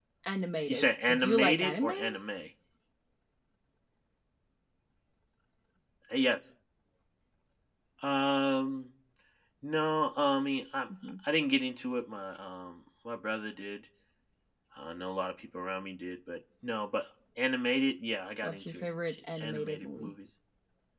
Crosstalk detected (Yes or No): Yes